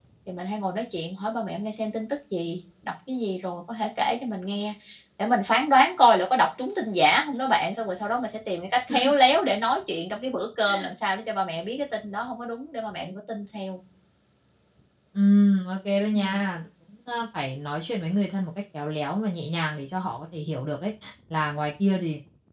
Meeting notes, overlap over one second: none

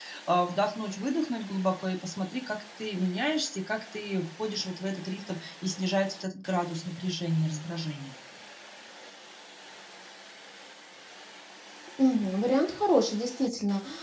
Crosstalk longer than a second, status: none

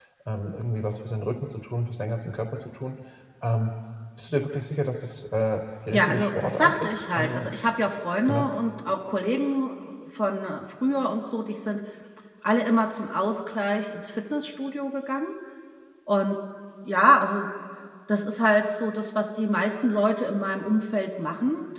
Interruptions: present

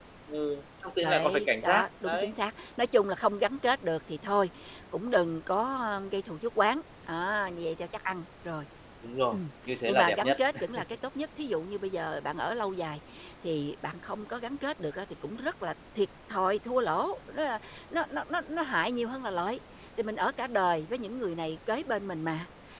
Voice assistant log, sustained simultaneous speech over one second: present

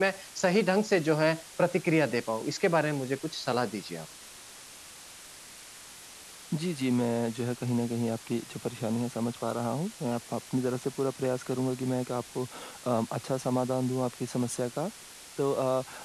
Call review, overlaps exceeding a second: none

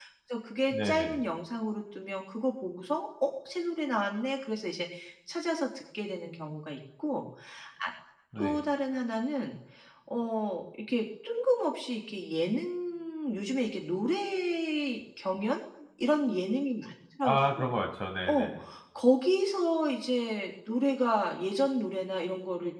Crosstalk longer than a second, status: none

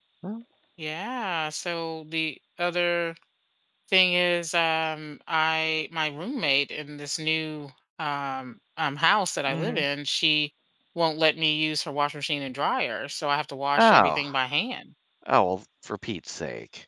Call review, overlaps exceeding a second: none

